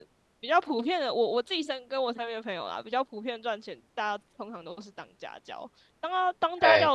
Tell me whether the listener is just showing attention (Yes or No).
Yes